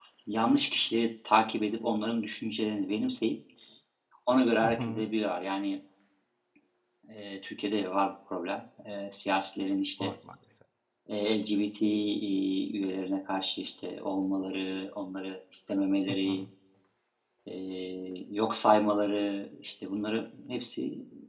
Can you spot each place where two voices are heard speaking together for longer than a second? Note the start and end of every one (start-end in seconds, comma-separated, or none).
none